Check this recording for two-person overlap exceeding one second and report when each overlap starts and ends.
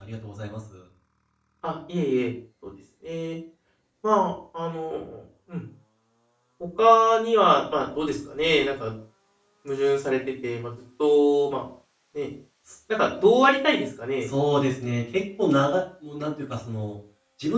none

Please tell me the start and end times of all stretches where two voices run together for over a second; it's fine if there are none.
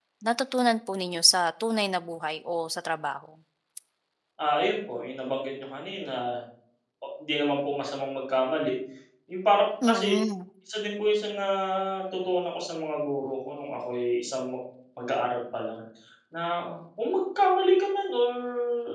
none

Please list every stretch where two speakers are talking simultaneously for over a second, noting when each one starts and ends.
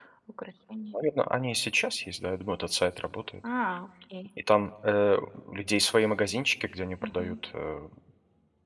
none

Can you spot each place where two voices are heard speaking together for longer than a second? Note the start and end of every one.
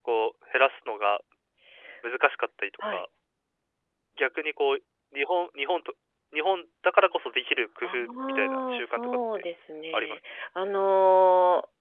7.8-9.2

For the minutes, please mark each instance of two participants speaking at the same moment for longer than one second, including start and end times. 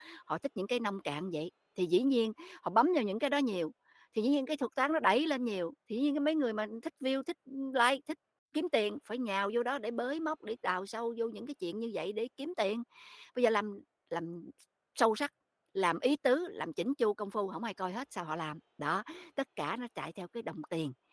none

